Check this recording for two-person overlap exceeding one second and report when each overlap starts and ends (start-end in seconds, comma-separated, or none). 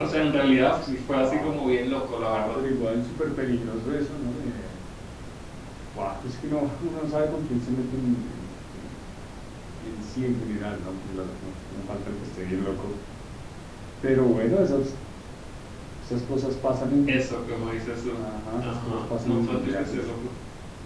18.6-20.0